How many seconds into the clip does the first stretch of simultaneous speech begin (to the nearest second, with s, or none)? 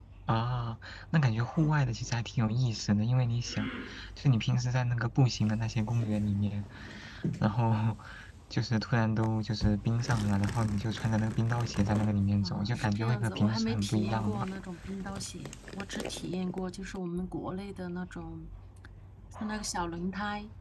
12 s